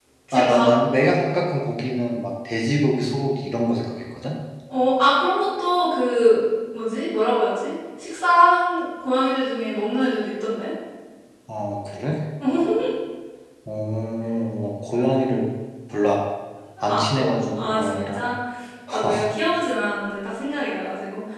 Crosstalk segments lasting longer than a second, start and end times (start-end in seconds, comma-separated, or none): 16.8-18.3